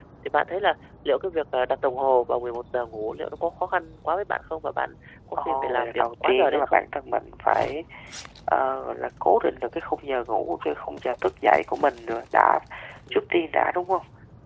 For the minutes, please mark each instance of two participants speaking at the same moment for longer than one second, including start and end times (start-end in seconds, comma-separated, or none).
5.5-6.8